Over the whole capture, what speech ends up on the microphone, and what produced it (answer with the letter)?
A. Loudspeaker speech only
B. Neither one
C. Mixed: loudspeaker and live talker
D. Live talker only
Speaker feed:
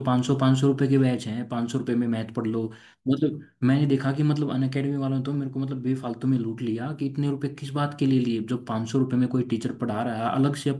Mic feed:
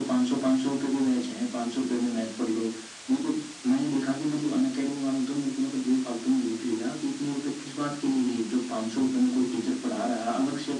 A